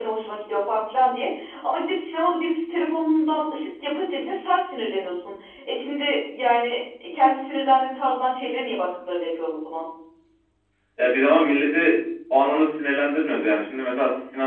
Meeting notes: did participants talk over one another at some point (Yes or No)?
No